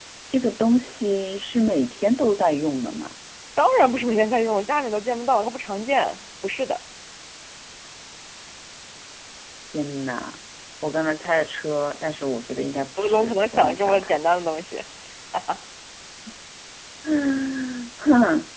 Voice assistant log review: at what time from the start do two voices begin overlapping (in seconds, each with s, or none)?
13.0 s